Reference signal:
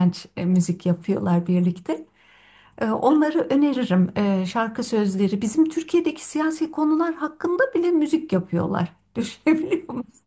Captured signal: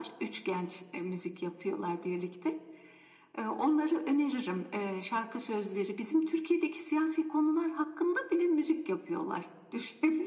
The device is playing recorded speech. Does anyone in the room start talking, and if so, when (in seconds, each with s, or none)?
none